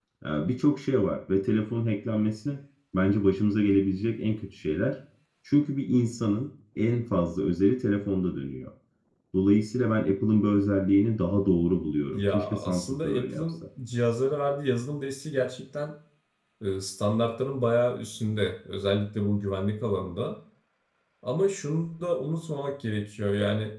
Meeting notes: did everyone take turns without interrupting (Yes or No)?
No